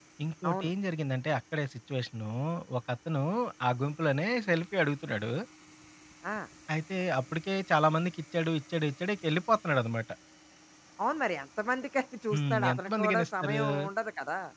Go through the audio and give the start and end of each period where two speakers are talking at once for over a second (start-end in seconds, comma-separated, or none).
12.3-13.6